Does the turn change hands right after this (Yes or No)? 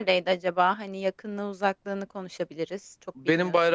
Yes